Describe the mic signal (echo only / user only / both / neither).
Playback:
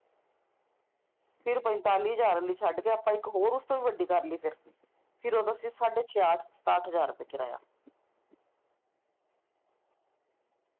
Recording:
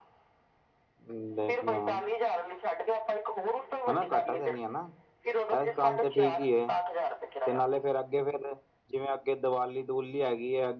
both